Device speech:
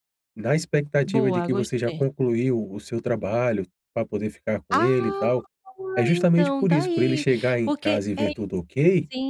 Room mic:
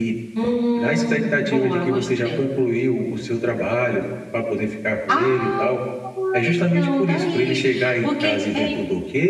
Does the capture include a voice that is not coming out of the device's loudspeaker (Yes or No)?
Yes